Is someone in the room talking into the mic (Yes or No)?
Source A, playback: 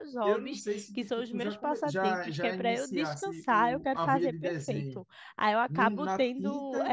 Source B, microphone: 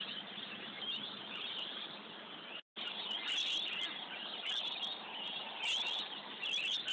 No